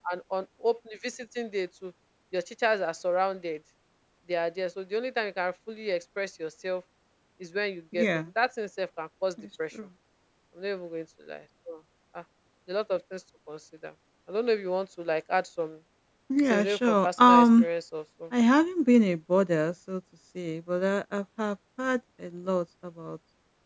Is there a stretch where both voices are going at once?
Yes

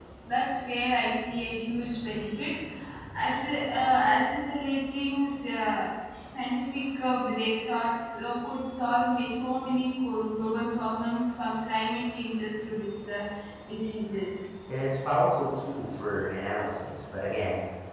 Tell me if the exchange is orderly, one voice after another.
Yes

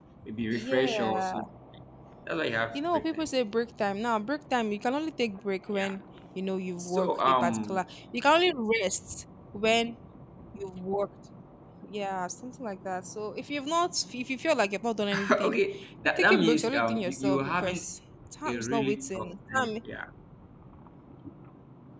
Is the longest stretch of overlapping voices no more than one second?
No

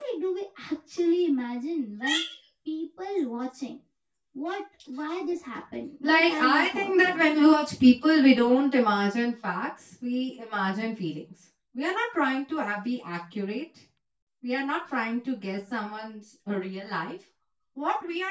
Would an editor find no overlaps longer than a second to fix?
No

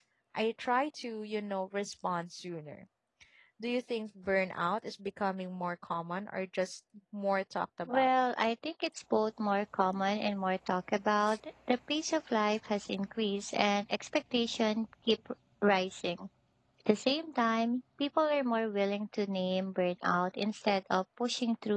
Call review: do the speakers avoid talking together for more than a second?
Yes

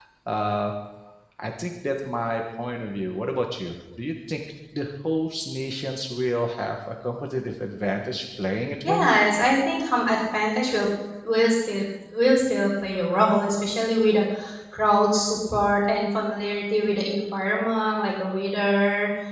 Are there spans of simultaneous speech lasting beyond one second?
No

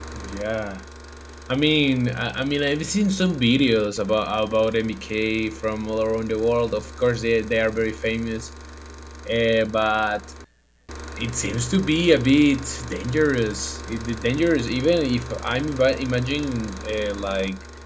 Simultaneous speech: No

